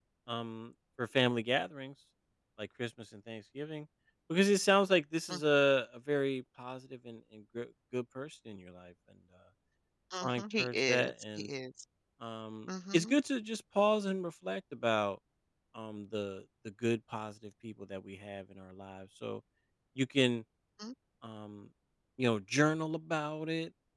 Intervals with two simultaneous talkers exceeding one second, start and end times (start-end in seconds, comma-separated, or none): 10.2-11.5